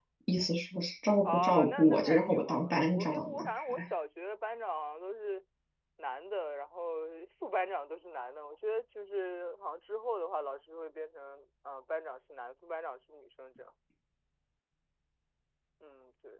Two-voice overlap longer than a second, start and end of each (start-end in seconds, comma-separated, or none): 1.2-3.8